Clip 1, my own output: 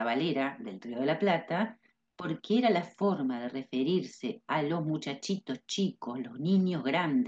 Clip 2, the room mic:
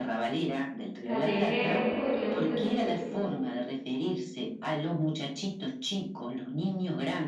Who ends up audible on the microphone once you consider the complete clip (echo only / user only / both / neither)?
both